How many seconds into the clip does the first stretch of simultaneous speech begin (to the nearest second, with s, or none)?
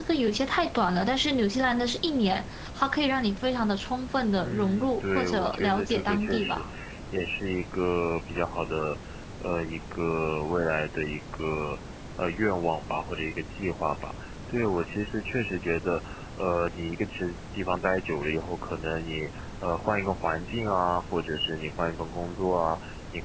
4 s